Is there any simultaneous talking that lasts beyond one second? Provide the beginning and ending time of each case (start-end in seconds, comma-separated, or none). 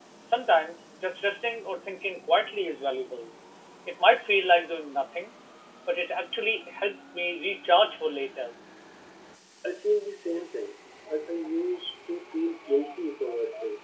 none